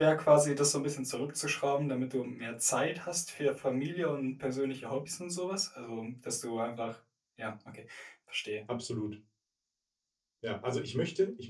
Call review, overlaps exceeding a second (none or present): none